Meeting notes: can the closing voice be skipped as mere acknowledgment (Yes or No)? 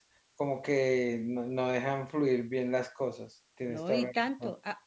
No